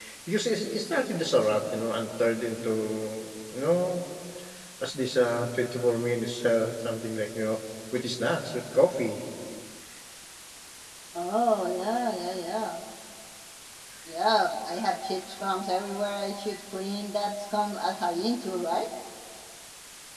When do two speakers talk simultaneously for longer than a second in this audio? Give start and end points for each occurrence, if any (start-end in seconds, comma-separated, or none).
none